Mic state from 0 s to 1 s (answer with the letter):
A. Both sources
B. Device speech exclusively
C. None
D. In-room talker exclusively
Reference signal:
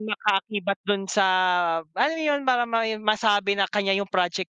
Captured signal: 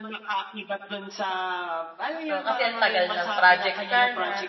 B